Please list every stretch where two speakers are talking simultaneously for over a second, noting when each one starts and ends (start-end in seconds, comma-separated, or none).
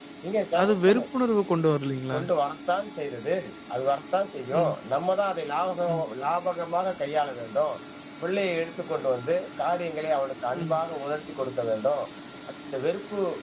none